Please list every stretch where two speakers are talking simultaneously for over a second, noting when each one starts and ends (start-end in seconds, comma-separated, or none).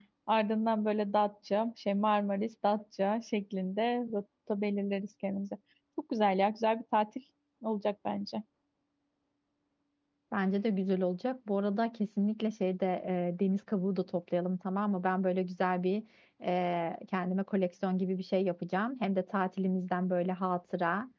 none